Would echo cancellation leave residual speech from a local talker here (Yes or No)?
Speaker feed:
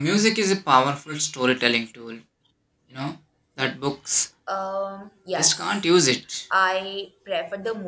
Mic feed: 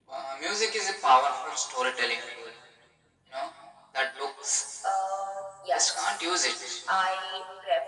No